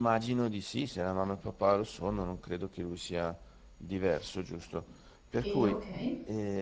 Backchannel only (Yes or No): Yes